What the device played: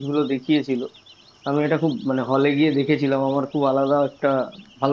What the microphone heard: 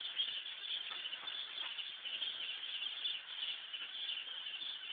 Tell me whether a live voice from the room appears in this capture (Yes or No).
No